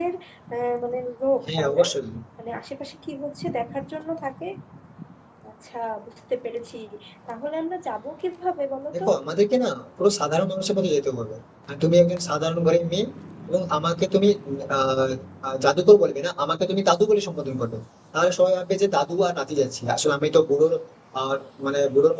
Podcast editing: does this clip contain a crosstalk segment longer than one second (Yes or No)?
No